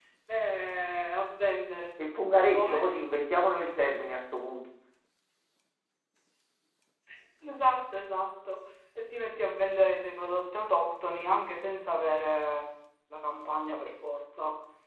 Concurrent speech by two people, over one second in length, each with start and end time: none

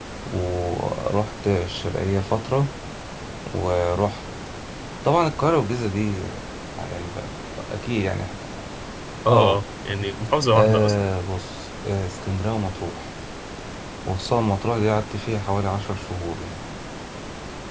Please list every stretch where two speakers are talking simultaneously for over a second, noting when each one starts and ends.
none

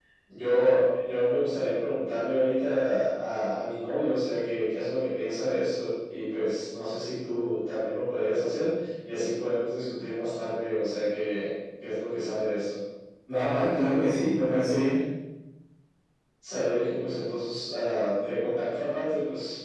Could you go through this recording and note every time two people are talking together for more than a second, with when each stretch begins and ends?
none

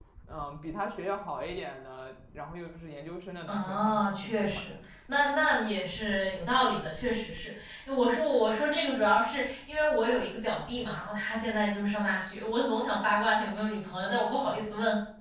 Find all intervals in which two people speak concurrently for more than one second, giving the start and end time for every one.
3.5-4.8

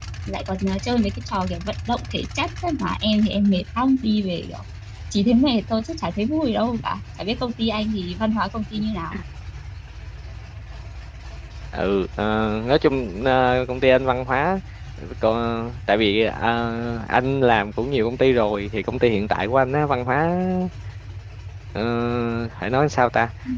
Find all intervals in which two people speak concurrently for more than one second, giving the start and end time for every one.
none

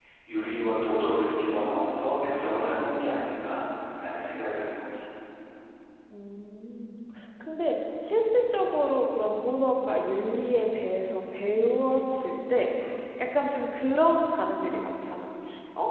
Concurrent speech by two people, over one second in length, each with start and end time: none

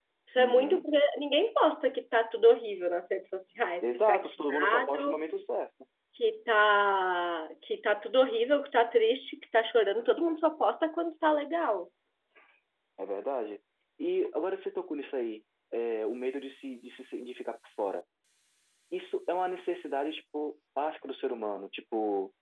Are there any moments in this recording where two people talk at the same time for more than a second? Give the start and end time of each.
3.8-5.2

